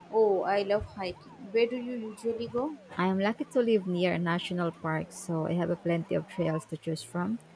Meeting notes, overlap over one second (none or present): none